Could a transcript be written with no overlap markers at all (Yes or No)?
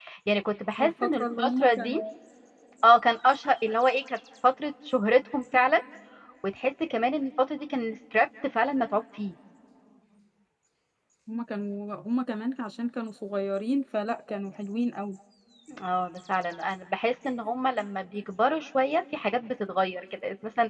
No